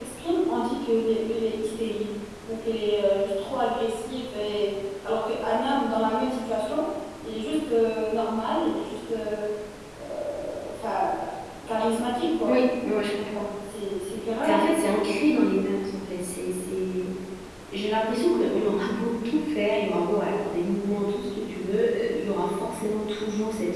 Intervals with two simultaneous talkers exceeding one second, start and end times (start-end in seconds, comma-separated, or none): none